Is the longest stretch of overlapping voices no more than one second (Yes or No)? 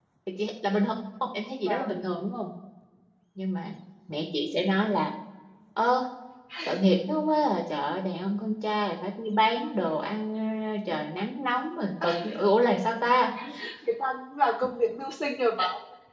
Yes